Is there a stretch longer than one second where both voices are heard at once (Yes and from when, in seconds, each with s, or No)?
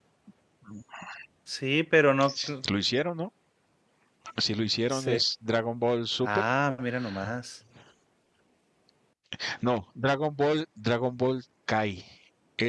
No